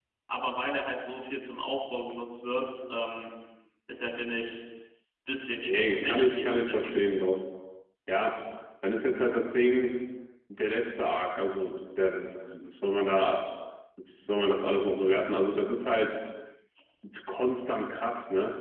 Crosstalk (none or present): present